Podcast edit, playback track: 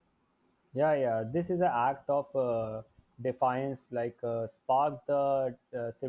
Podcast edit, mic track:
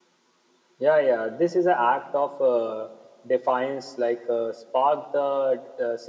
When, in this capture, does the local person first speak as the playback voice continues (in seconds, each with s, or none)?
none